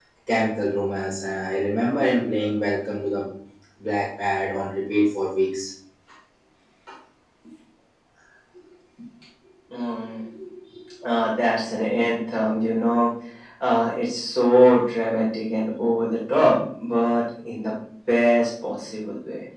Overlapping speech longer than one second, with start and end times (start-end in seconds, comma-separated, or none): none